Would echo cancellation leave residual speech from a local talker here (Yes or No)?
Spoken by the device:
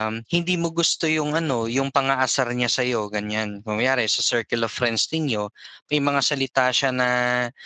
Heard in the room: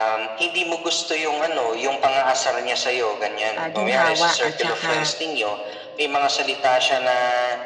Yes